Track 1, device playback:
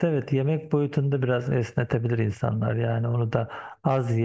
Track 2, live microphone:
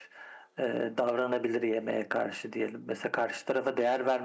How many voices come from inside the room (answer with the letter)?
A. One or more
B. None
A